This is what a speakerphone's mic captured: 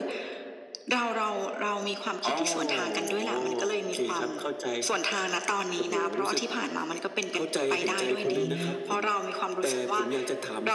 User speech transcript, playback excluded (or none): อืม